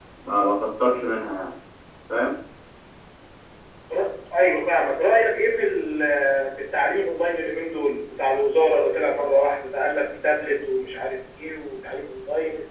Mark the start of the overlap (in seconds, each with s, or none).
none